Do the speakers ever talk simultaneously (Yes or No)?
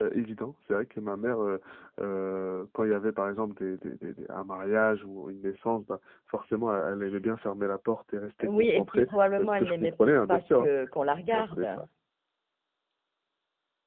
Yes